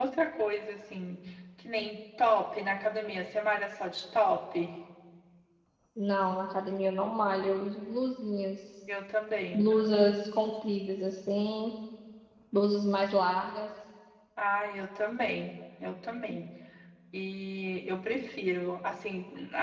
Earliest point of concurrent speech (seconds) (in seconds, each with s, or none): none